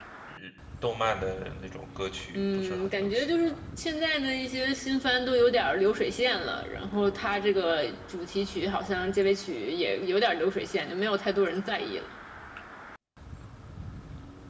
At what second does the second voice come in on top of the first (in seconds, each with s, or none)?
2.3 s